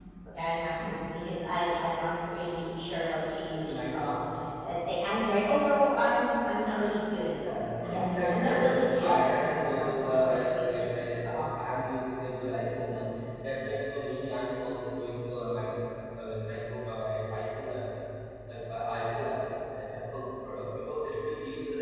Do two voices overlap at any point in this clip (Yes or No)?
Yes